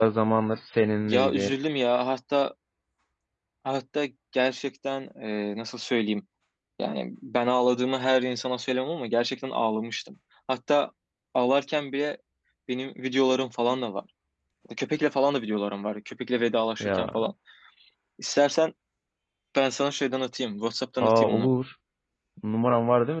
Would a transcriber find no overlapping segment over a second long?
Yes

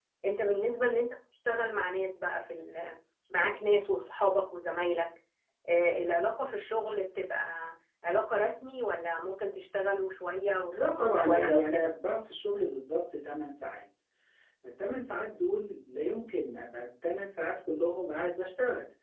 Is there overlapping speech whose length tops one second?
Yes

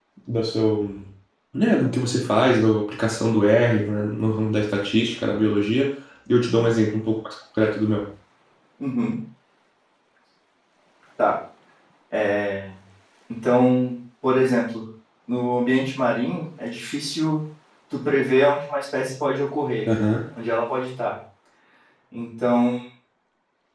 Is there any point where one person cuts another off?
No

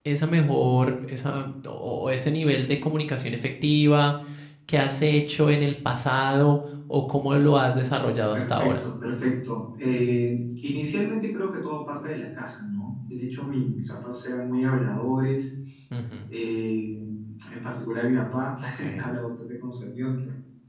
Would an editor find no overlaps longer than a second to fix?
Yes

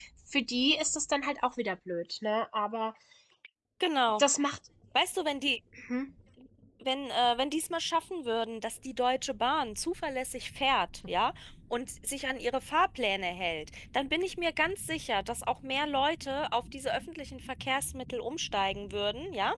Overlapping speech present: No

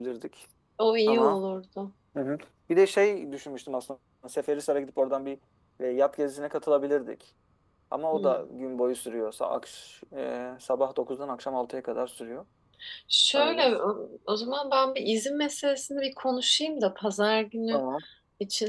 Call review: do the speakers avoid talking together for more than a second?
Yes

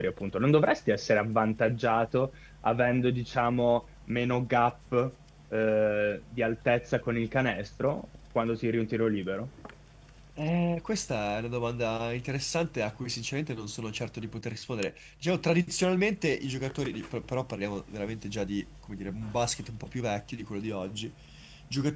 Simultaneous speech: No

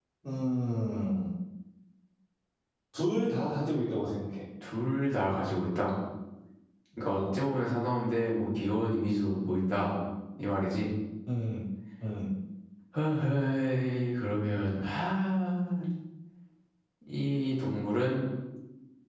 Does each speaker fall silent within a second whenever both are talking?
Yes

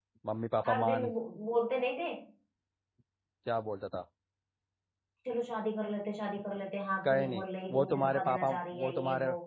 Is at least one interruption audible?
Yes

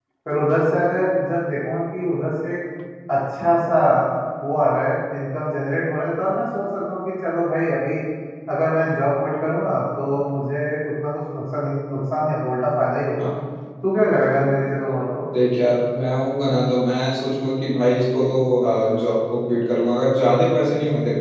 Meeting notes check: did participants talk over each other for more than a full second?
No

